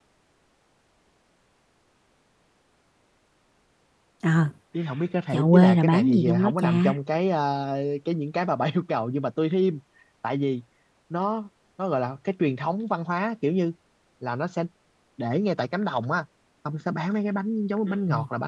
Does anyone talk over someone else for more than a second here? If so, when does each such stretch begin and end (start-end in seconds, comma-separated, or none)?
5.3-6.9